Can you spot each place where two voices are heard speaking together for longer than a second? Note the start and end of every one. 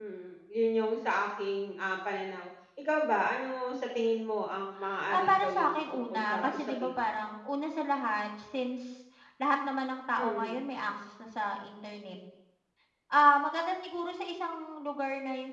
5.1-7.0

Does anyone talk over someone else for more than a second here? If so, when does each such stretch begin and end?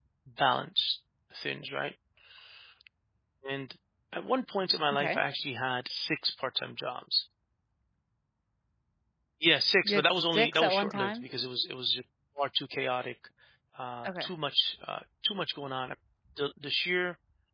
9.8-11.2

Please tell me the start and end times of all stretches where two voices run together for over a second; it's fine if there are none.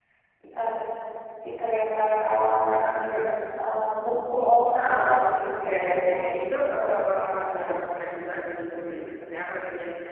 5.6-7.7

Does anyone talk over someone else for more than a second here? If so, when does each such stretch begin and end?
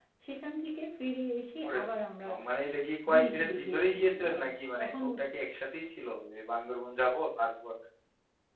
3.1-4.4

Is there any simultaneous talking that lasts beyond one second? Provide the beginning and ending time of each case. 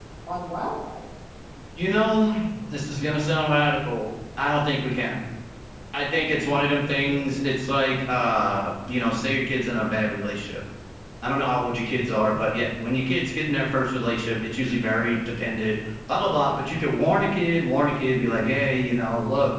none

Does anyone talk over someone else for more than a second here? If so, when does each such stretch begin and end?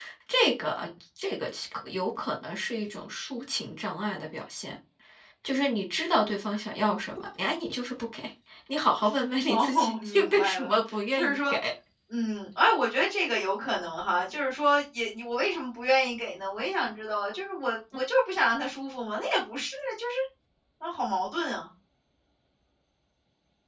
9.4-11.5

